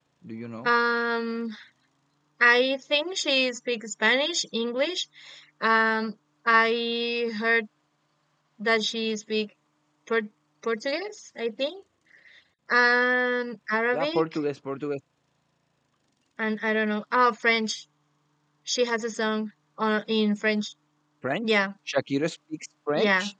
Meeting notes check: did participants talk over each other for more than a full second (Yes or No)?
No